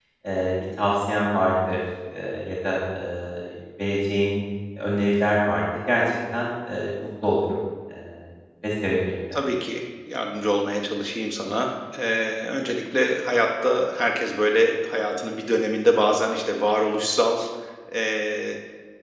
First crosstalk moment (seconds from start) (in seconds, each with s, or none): none